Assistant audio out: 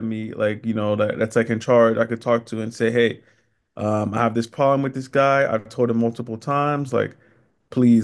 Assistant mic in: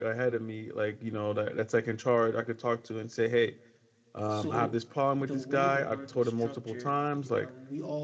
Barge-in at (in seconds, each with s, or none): 4.3 s